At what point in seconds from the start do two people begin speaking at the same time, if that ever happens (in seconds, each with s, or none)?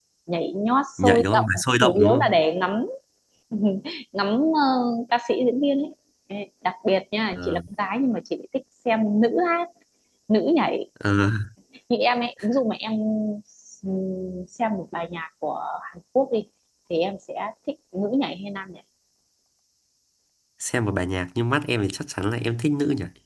1.0 s